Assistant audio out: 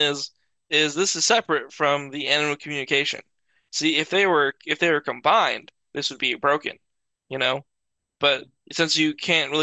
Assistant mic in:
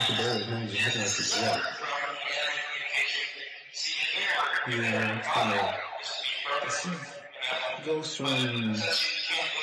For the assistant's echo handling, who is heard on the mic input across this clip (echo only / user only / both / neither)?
both